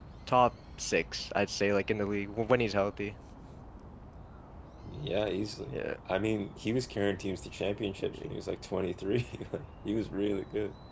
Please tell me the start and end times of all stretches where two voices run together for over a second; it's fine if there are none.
none

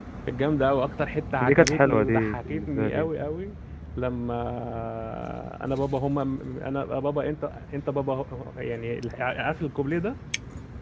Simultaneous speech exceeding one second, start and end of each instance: 1.4-3.1

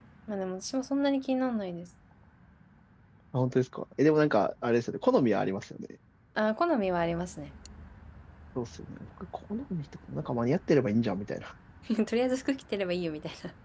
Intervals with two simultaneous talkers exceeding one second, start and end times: none

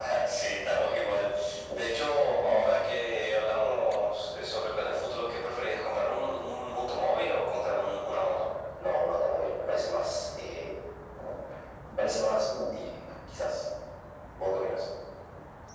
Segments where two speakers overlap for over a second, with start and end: none

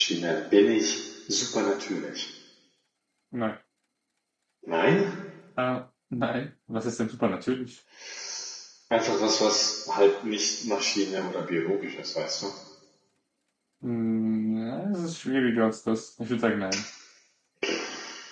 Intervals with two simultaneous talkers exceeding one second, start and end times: none

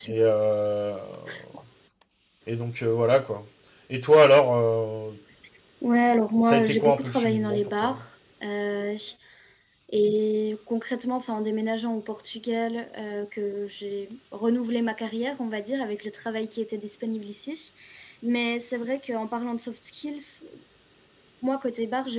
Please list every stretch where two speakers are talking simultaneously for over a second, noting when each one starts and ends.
6.5-8.0

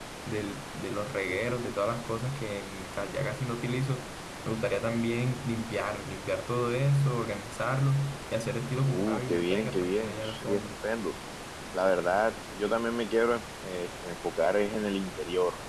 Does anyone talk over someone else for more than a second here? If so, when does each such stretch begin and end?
8.8-10.6

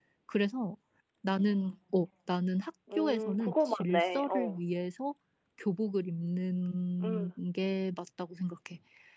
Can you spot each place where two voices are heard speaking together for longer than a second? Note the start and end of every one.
3.0-4.6

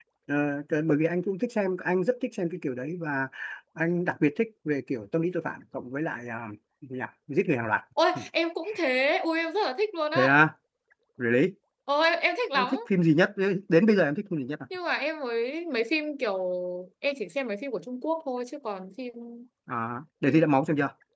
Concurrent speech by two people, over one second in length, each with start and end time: none

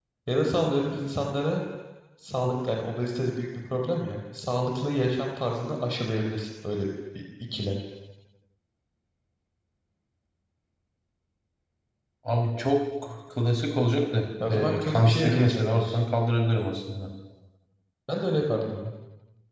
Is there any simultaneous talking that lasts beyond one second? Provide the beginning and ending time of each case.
14.4-16.0

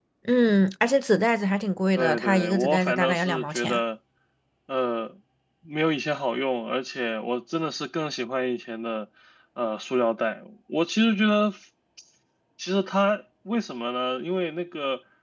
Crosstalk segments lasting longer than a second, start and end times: 1.9-3.8

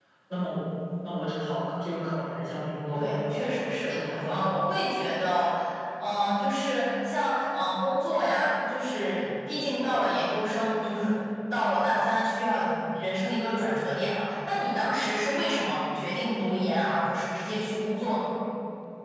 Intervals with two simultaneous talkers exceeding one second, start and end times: 2.9-4.5

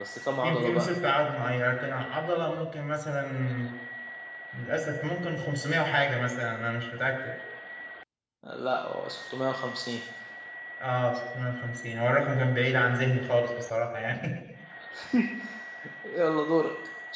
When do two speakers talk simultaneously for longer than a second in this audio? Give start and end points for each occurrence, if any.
none

